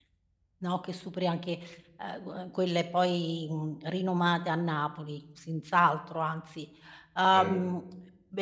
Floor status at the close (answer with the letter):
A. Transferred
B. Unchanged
B